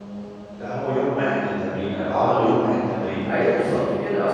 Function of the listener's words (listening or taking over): taking over